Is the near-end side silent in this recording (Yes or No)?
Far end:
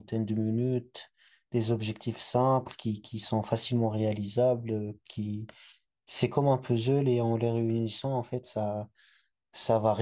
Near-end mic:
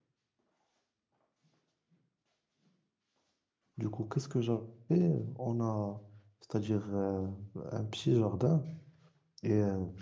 No